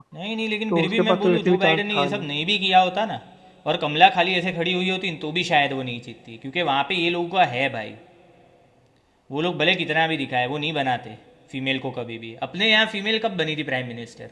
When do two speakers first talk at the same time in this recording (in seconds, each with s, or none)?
0.7 s